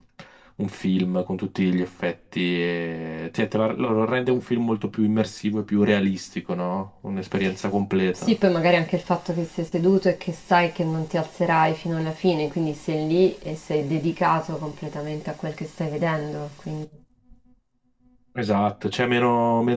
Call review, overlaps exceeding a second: none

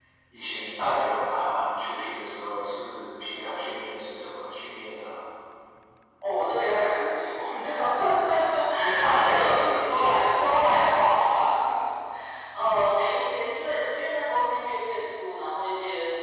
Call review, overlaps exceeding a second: present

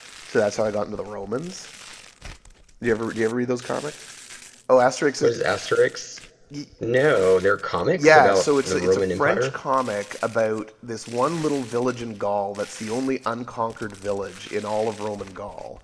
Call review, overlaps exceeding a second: present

